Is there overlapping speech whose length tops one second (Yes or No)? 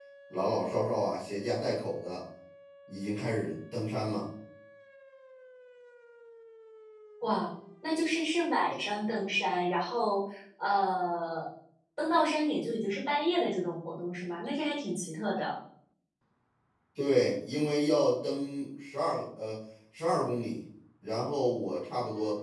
No